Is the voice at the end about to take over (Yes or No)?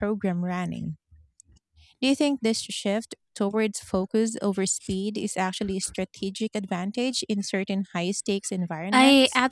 Yes